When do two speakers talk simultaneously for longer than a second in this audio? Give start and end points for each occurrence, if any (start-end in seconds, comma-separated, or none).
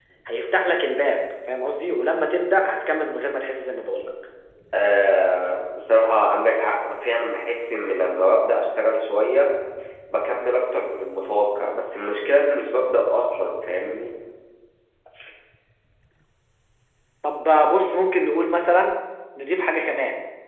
none